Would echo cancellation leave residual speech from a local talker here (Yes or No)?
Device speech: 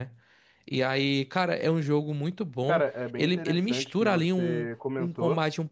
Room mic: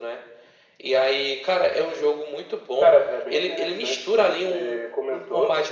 No